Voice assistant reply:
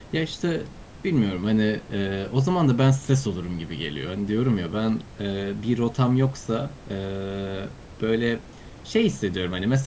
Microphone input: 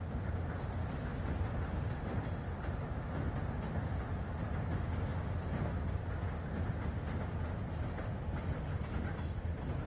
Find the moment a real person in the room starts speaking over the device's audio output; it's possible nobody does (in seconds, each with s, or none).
none